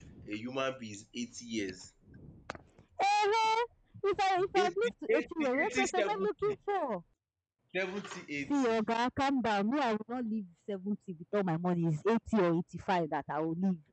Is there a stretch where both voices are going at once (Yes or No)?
Yes